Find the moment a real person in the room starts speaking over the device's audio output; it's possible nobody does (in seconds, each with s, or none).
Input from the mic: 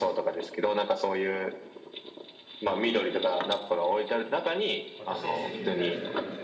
5.0 s